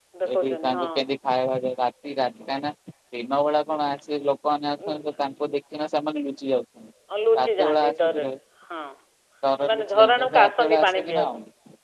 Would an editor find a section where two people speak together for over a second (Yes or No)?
Yes